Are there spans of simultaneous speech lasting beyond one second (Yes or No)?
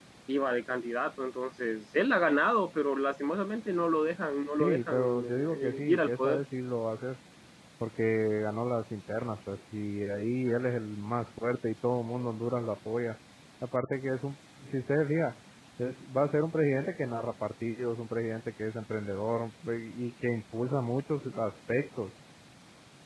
Yes